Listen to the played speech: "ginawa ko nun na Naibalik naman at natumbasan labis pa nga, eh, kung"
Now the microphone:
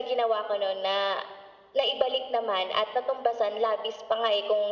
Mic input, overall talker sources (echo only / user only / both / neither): echo only